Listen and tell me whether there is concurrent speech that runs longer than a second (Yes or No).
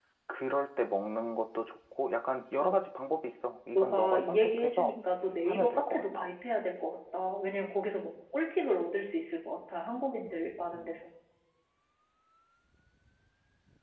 Yes